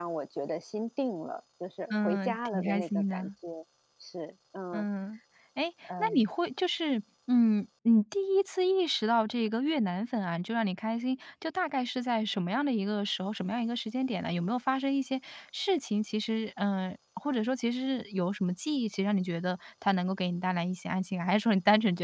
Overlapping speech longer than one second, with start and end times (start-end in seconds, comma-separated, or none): 1.9-3.3